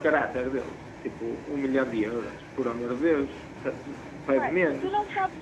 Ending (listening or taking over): taking over